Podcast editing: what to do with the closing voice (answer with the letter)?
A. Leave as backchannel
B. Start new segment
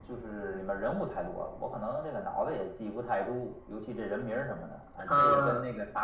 A